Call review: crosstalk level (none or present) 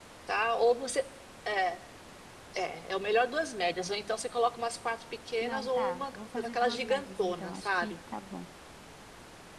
present